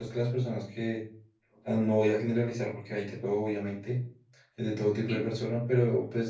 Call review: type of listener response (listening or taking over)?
listening